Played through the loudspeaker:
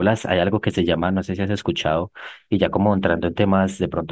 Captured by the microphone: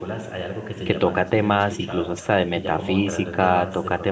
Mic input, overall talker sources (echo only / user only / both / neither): both